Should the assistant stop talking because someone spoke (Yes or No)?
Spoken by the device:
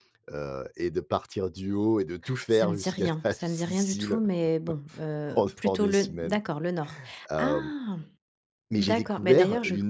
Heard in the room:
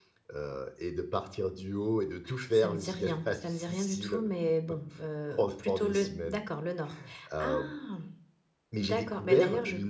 No